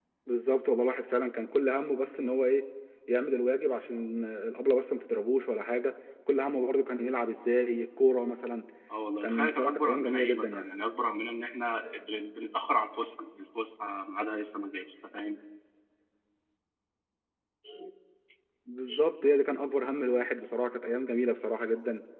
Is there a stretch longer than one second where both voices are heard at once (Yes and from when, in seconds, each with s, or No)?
Yes, from 9.2 s